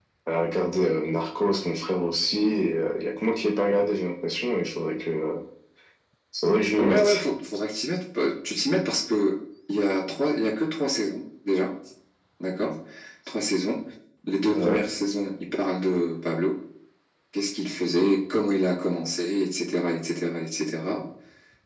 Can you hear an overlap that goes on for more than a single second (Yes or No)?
No